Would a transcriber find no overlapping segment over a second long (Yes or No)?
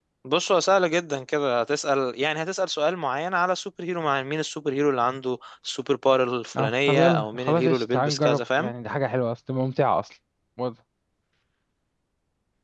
No